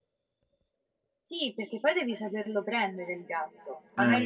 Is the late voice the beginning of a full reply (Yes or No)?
No